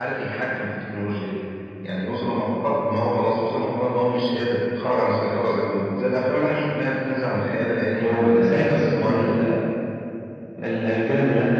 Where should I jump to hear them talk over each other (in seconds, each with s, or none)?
8.0 s